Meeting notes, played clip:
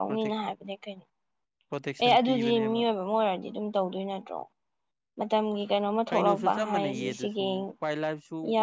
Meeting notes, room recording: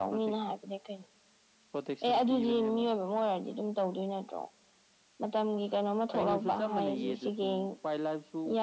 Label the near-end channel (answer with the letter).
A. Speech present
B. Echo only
B